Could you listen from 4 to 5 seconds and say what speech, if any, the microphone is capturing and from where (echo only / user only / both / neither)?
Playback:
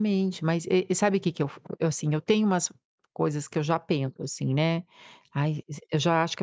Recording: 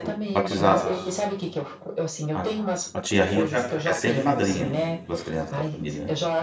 both